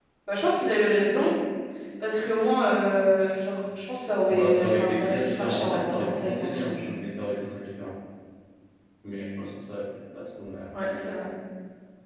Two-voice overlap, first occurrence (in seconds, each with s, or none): 4.3 s